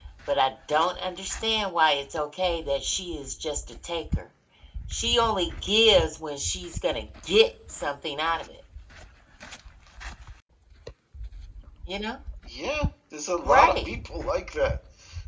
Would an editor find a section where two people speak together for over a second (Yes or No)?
No